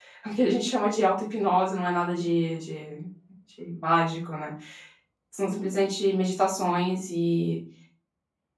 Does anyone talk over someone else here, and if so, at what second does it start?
none

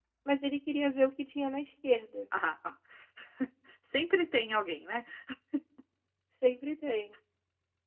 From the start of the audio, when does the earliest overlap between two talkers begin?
none

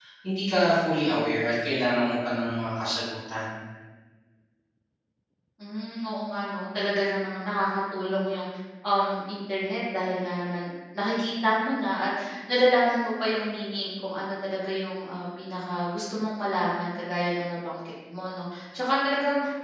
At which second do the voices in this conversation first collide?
none

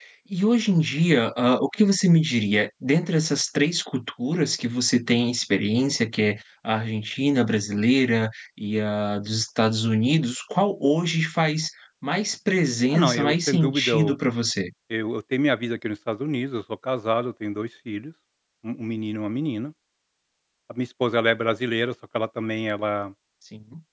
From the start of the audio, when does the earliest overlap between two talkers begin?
12.9 s

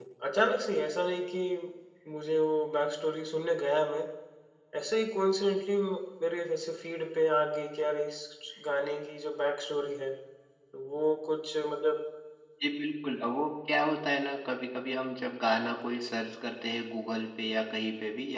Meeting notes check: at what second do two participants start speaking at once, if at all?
none

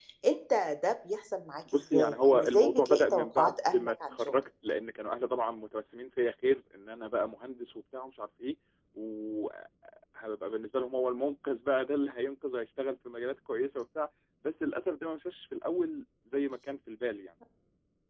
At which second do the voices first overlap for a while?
1.7 s

